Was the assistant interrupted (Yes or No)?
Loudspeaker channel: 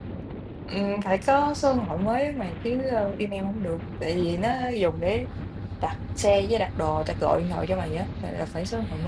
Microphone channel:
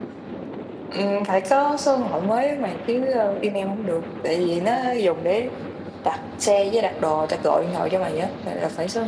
No